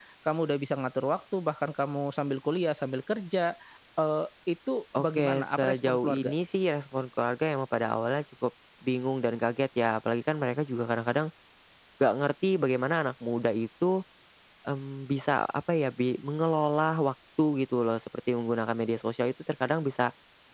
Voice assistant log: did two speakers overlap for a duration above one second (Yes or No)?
Yes